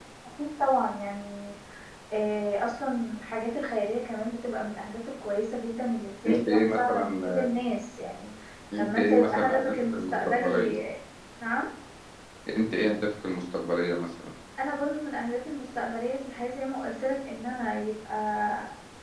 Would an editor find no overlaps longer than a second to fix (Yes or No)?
No